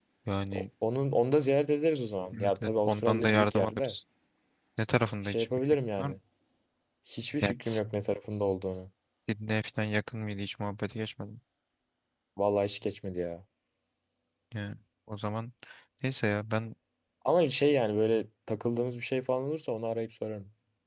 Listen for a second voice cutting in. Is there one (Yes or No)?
Yes